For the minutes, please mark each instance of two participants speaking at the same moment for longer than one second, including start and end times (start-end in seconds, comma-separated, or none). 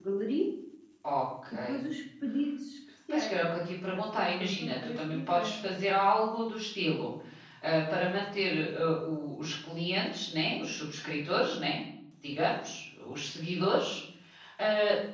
3.9-5.6